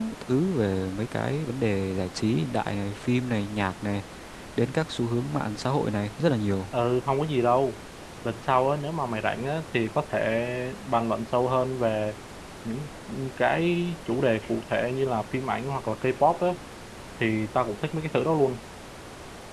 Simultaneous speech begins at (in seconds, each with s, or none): none